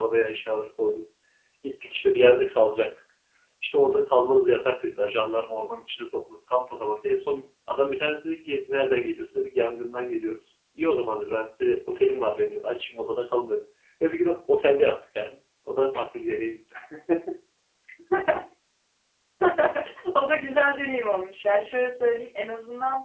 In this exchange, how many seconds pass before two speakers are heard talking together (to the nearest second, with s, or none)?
none